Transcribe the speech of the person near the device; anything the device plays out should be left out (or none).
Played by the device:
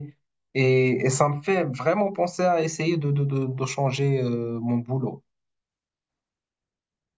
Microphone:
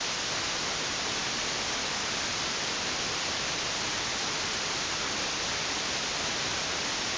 none